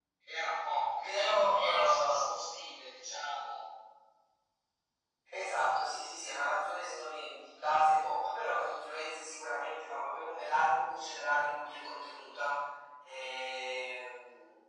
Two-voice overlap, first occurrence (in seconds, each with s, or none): 1.0 s